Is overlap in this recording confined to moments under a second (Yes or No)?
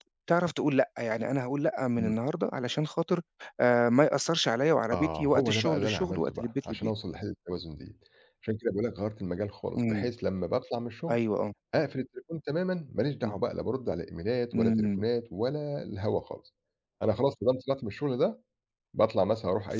No